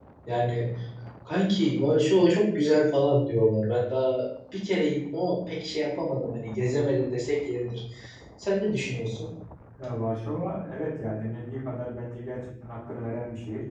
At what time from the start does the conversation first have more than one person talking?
none

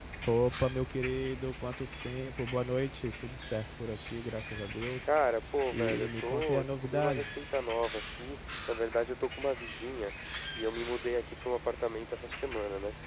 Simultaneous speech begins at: 5.7 s

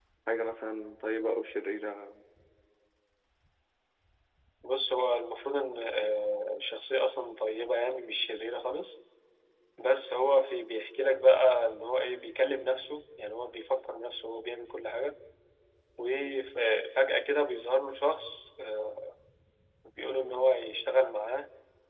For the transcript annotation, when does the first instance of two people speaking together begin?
none

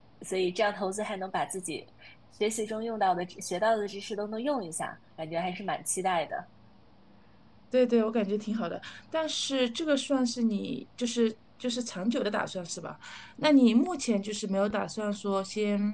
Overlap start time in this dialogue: none

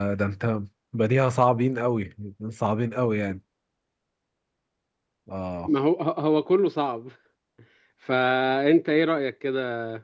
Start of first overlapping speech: none

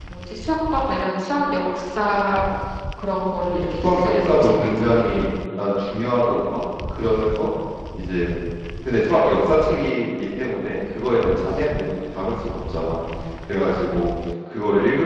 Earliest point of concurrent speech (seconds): 3.8 s

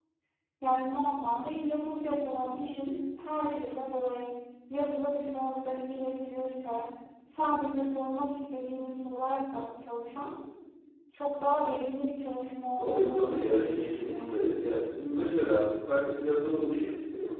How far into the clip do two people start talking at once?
12.8 s

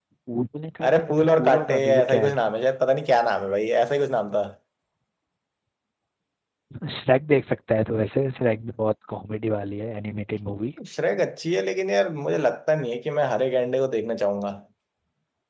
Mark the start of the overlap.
0.8 s

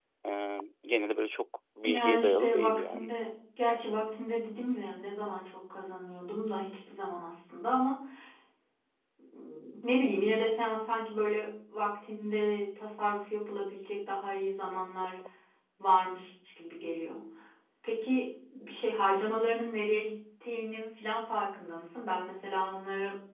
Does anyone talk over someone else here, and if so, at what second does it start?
1.8 s

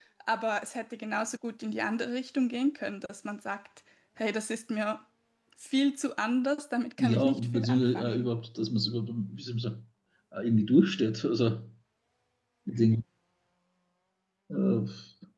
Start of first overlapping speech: 7.0 s

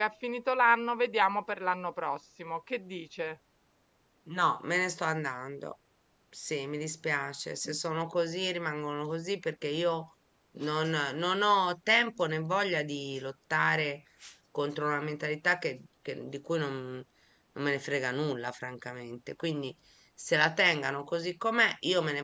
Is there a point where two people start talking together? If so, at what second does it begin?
none

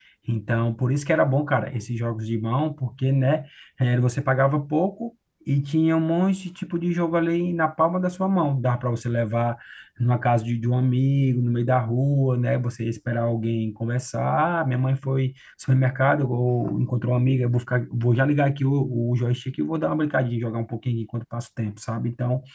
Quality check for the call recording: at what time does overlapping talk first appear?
none

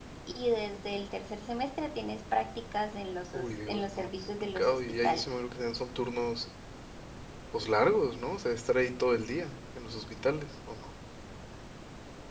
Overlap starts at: 3.3 s

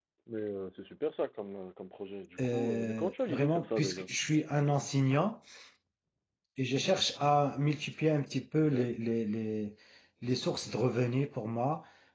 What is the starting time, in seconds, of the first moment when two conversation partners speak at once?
2.4 s

